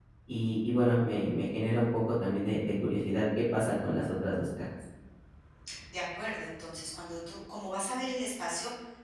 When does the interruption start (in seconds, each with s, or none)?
none